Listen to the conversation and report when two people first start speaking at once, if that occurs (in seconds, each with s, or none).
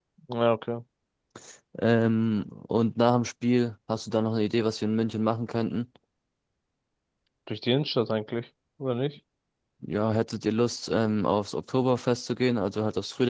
none